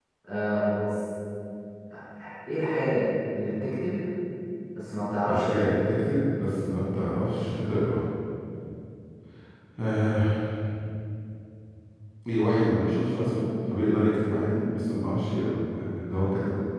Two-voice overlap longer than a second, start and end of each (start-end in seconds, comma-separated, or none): none